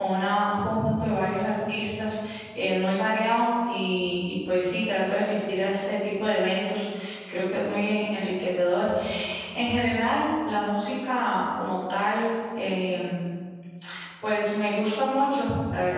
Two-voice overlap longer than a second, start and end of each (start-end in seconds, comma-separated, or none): none